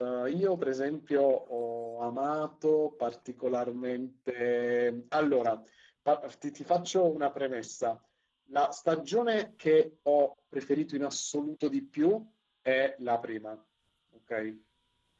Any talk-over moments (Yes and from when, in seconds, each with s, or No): No